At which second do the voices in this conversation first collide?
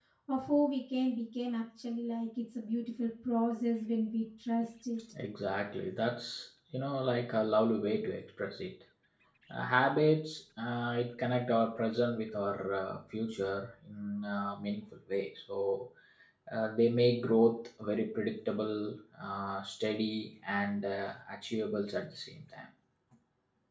none

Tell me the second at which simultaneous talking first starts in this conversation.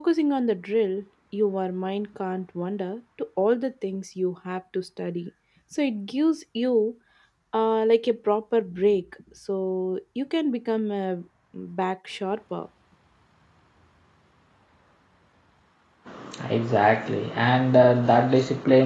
none

